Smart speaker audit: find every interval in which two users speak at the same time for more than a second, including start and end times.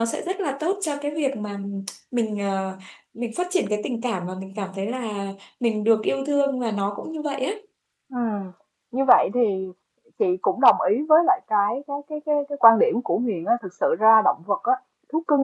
none

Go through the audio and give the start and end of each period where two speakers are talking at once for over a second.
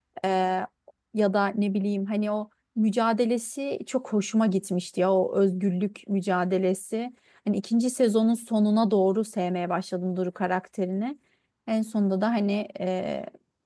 none

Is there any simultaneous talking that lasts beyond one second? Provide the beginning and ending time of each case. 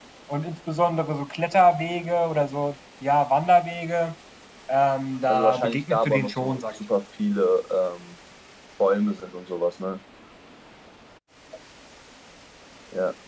5.3-6.8

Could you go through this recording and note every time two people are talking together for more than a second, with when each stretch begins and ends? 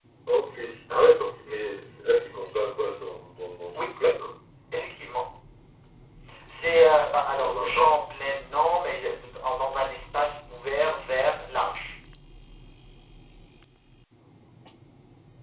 none

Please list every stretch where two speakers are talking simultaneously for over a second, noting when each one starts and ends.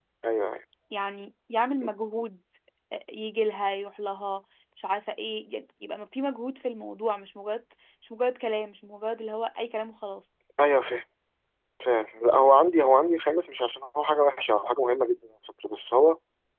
none

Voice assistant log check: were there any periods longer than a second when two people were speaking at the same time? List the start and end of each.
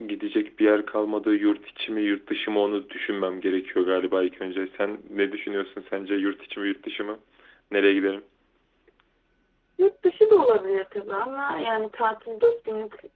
none

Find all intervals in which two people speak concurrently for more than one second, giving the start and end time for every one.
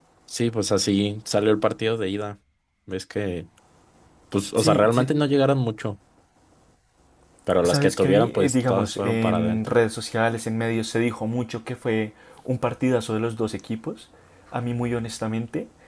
7.6-9.8

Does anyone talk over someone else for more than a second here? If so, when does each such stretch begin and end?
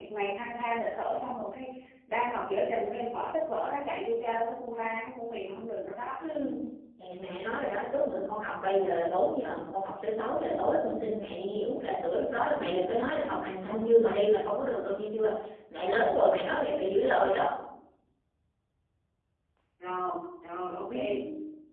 none

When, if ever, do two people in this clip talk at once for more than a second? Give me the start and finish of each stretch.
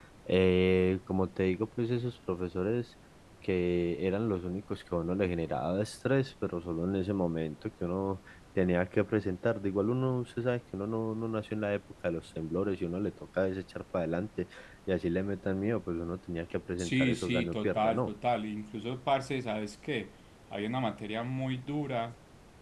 16.8-18.1

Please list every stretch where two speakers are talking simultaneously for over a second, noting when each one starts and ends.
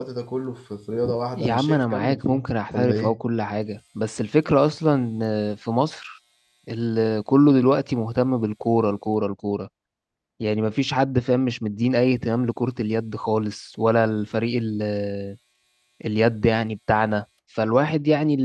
1.4-3.2

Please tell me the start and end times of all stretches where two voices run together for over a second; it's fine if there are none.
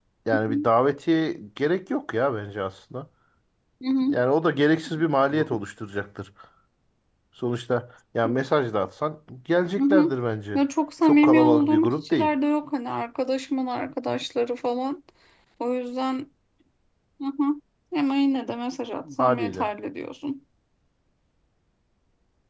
11.0-12.3

